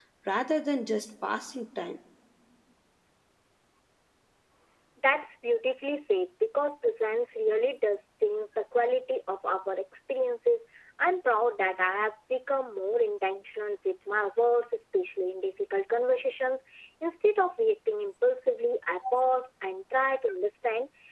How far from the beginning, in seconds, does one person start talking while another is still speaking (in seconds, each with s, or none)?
none